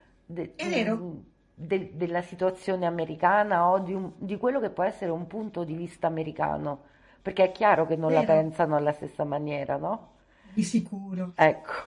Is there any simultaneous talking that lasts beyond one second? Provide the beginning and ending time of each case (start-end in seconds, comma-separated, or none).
none